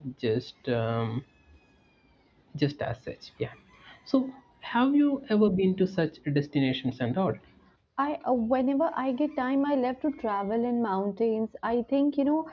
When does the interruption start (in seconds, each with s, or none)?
none